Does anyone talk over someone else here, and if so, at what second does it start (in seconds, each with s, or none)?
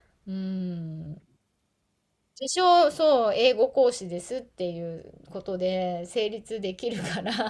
none